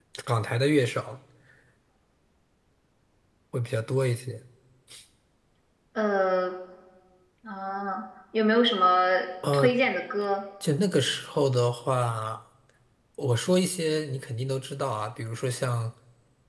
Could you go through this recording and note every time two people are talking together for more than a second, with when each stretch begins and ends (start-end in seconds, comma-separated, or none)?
none